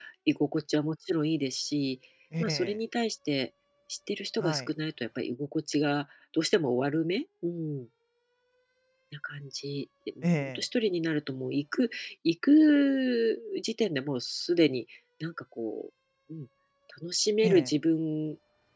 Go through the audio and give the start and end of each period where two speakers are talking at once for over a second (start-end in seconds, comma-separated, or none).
none